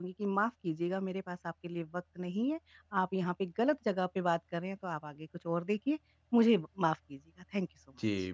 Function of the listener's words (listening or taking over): taking over